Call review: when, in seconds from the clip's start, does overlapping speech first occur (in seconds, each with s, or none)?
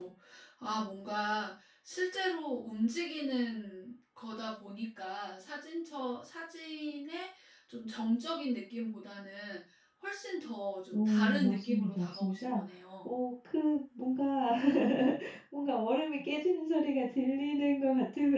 10.9 s